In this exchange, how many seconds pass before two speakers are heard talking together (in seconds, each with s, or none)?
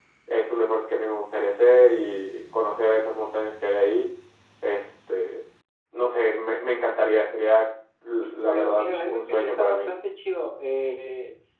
8.5 s